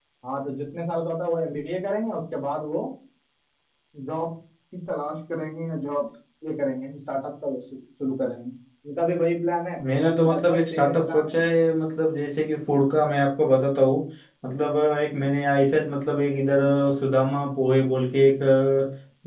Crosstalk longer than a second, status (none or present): present